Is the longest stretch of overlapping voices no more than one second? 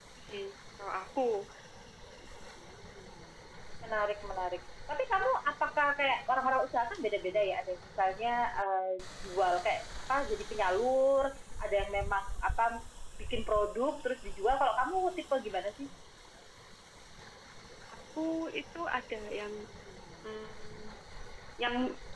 Yes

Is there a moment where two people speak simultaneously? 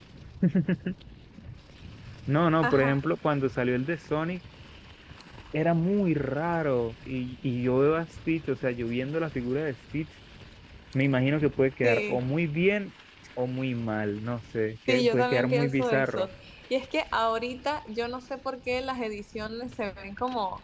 Yes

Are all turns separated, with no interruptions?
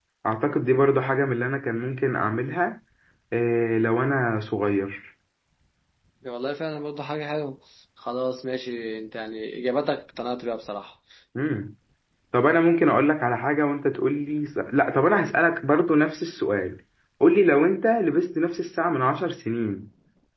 Yes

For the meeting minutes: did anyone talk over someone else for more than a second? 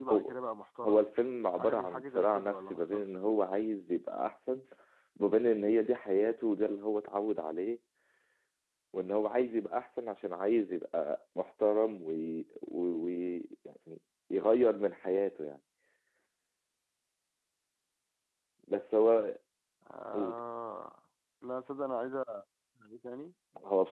Yes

